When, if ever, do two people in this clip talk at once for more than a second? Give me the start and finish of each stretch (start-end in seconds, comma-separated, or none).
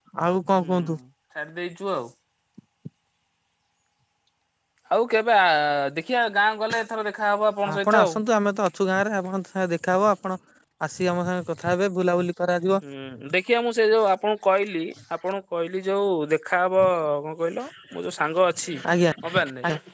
none